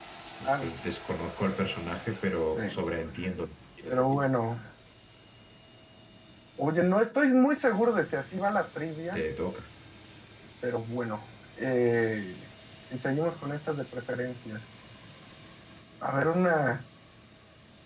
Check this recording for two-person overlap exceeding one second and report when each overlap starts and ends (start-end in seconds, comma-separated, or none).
none